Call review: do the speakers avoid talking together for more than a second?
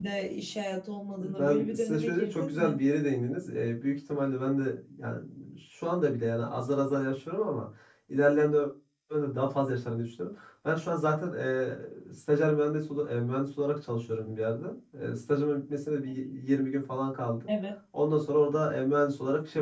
No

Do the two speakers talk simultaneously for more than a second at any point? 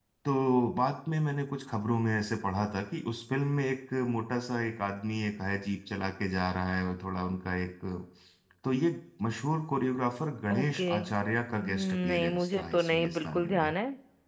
Yes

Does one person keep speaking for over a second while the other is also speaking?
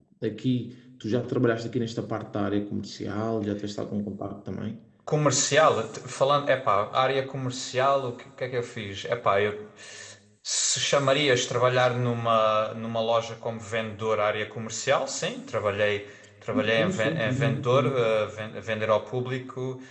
Yes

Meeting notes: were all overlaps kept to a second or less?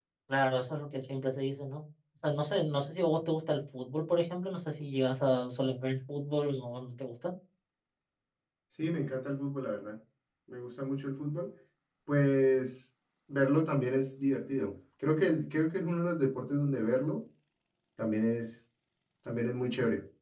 Yes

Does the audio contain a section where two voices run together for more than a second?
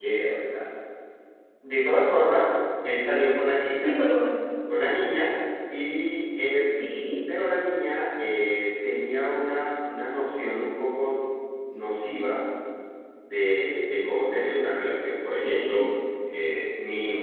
No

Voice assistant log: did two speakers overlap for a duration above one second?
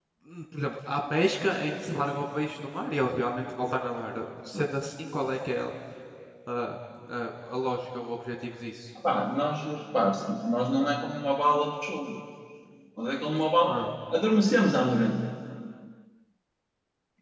No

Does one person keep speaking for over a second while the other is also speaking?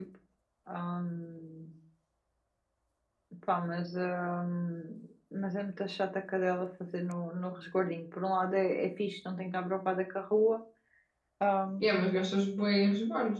No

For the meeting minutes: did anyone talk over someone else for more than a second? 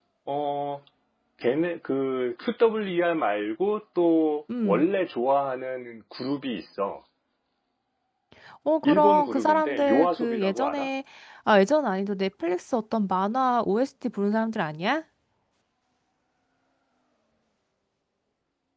Yes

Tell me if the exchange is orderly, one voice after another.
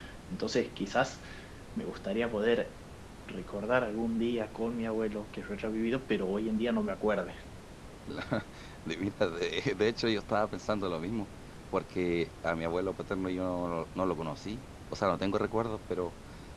Yes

